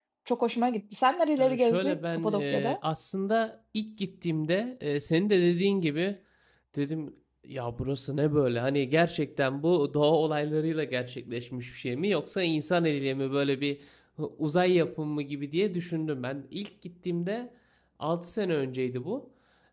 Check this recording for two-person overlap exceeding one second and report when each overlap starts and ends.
1.4-2.8

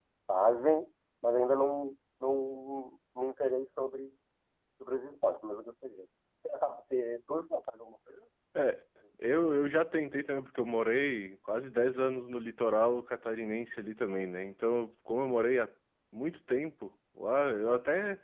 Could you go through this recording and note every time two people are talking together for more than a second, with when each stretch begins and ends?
none

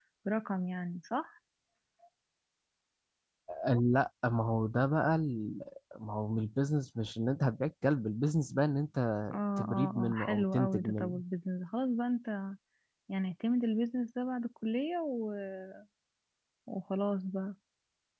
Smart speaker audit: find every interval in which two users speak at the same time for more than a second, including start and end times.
9.3-11.1

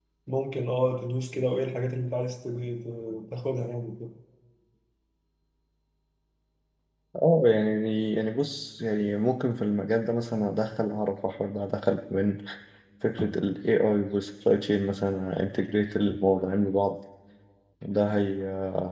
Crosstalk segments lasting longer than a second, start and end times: none

